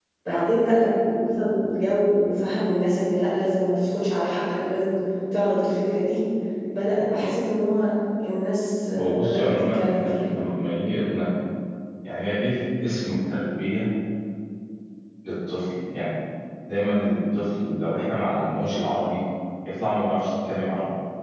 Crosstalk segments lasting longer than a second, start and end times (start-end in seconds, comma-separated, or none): 9.0-10.2